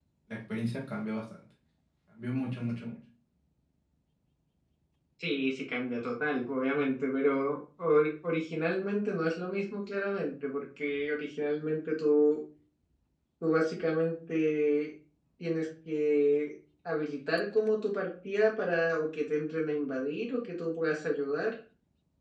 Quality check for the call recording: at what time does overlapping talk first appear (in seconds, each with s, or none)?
none